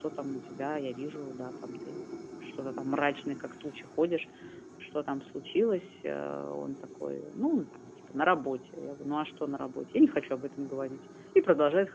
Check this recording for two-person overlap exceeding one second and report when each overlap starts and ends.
none

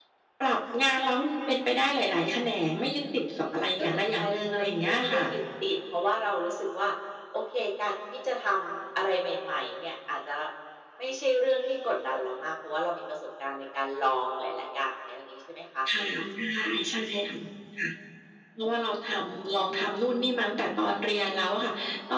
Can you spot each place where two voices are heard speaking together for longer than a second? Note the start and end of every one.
3.8-5.4

